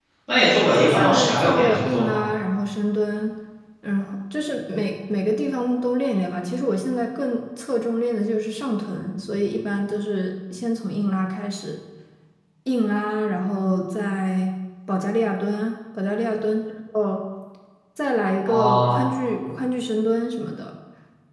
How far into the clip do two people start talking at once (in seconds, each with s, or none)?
0.7 s